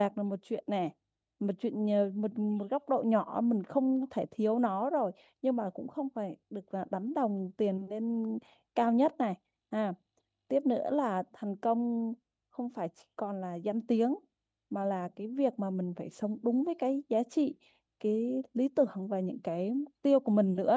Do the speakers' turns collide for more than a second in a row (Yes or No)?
No